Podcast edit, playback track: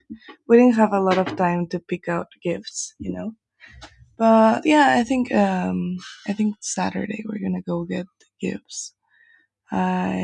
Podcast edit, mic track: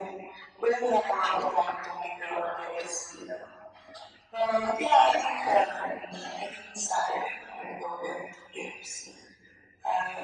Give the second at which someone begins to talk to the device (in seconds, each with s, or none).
none